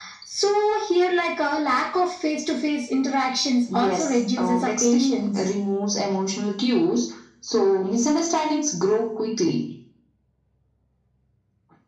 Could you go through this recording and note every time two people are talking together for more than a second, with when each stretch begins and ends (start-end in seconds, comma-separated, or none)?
3.7-5.5